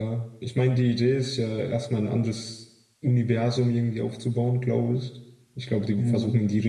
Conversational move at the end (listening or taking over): listening